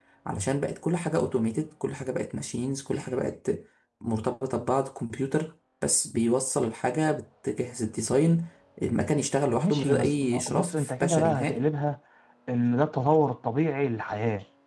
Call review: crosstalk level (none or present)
present